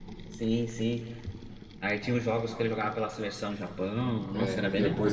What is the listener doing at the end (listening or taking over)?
taking over